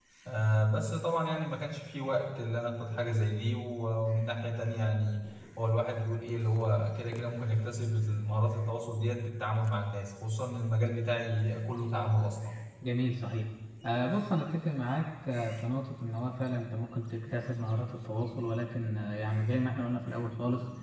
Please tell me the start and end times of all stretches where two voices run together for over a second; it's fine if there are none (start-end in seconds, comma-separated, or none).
none